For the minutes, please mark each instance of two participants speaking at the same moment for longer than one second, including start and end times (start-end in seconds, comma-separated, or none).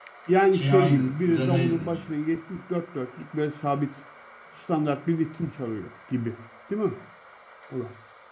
0.5-2.0